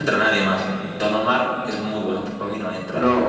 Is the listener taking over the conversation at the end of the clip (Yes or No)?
Yes